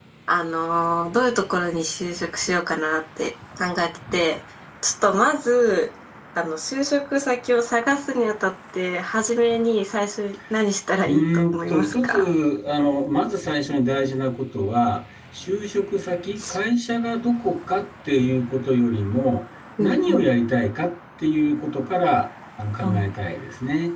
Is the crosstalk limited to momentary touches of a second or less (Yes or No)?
No